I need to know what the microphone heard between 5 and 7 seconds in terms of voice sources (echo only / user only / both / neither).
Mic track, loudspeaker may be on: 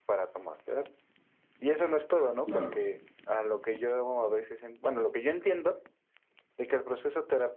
echo only